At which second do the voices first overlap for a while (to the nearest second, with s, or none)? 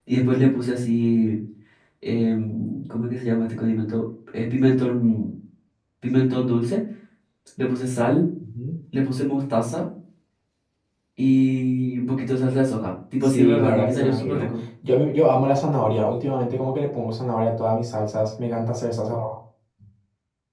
13 s